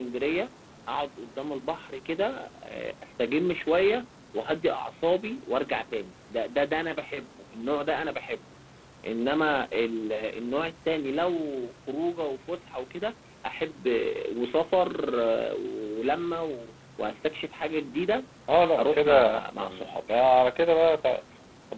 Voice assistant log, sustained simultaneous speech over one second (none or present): present